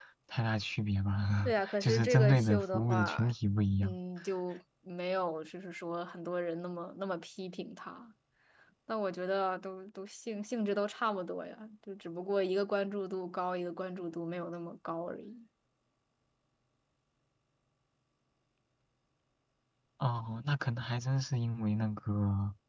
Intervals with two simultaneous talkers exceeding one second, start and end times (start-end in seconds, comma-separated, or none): 1.4-3.2